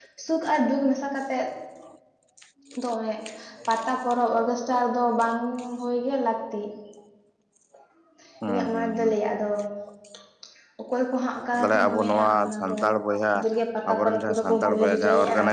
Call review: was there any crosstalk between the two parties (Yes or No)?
Yes